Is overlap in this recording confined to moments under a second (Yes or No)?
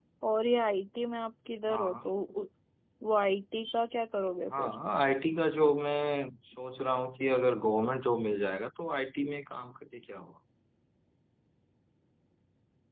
Yes